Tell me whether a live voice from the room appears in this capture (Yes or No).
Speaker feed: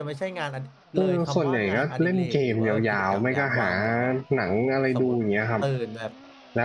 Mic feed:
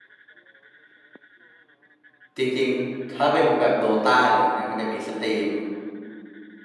Yes